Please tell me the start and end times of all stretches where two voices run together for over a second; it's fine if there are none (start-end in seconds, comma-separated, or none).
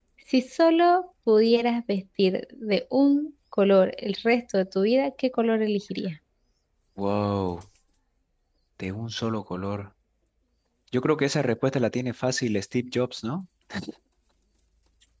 none